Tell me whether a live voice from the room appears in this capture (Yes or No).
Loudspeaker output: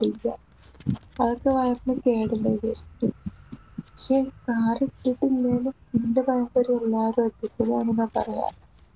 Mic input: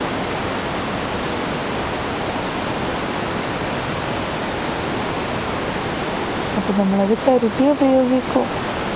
Yes